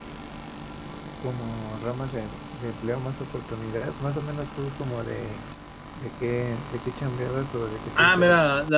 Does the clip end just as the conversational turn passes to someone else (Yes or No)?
Yes